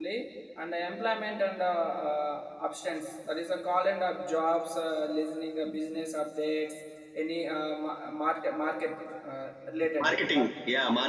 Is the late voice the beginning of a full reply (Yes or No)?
Yes